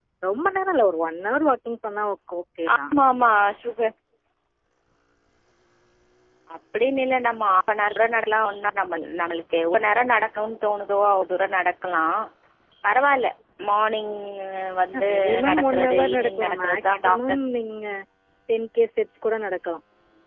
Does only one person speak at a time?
No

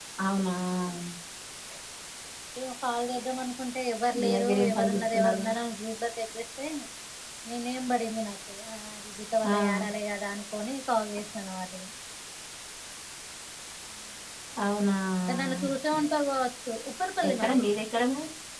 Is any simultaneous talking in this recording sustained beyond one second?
Yes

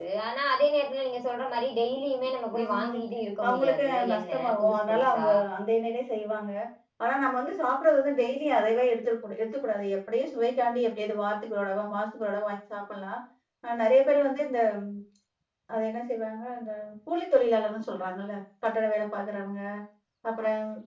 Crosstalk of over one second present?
Yes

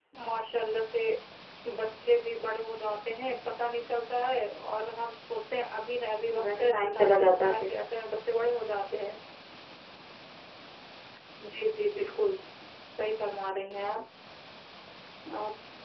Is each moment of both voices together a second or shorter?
No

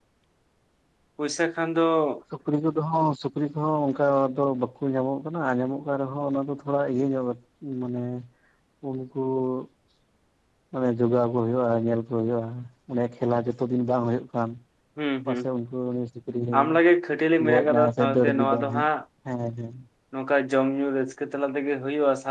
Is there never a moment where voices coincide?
No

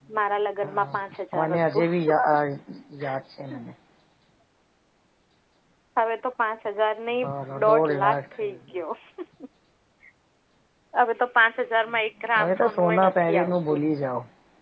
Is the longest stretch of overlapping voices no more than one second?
No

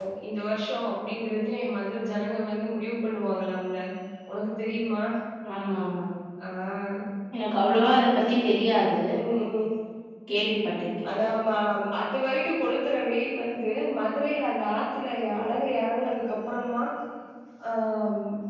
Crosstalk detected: No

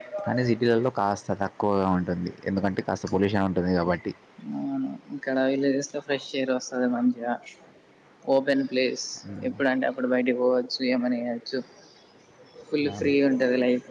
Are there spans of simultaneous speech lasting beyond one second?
No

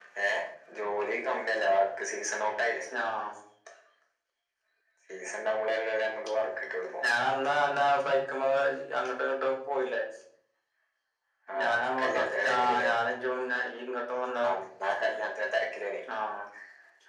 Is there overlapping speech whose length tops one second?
Yes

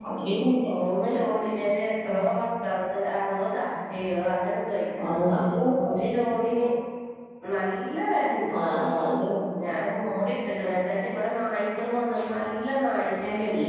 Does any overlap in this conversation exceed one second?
No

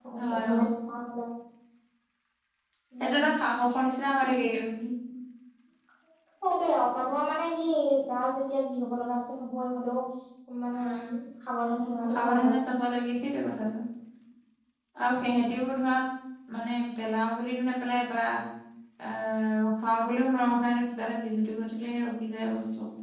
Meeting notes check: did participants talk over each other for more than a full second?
No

